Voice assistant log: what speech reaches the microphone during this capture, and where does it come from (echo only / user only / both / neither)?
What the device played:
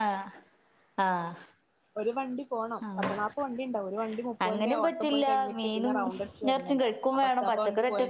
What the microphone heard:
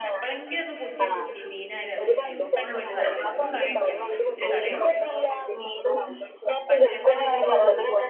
both